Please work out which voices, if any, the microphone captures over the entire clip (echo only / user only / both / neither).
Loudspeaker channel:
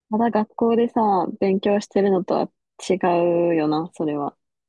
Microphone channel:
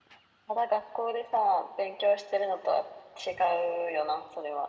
echo only